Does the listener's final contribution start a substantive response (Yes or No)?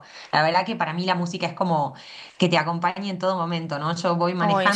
No